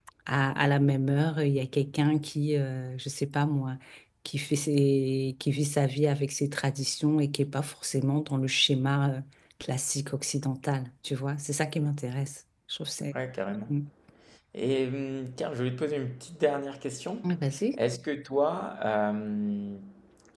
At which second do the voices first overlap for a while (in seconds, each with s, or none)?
none